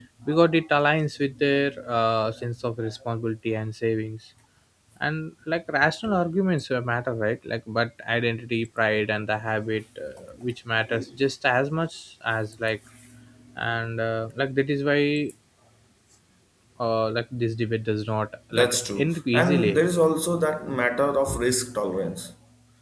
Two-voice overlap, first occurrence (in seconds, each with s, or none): 18.5 s